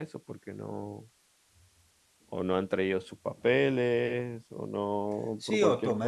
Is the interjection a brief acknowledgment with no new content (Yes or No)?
No